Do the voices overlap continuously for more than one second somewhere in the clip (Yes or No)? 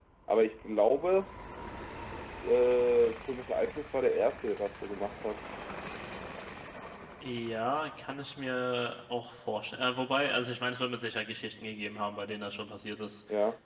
No